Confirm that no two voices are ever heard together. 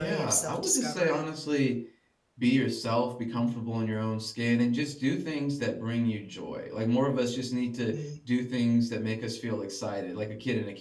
No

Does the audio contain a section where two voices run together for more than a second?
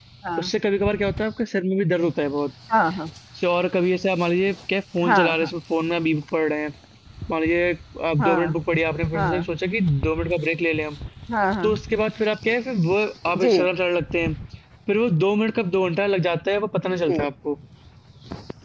No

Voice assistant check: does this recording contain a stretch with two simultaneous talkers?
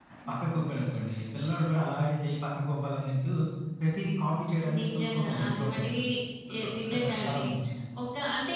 Yes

